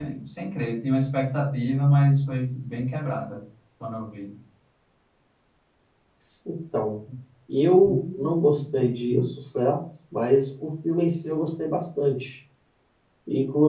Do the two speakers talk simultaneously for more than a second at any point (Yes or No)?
No